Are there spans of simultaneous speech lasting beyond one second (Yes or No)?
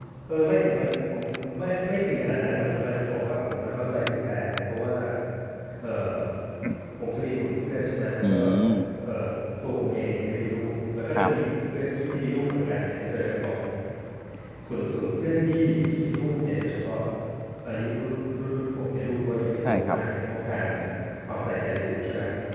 No